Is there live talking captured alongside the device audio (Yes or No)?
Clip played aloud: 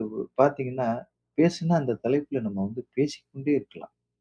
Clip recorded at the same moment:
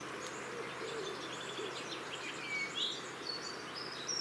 No